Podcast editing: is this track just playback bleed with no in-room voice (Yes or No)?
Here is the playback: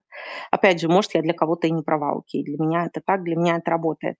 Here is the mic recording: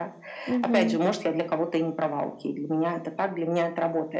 No